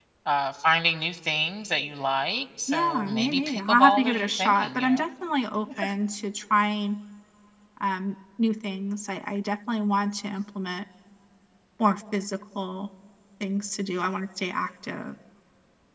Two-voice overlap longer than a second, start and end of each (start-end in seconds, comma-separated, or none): 2.7-5.1